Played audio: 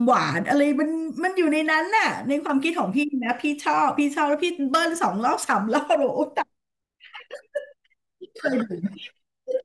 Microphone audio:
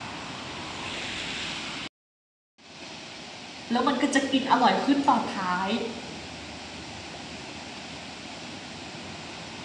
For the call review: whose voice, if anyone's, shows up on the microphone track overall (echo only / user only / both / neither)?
user only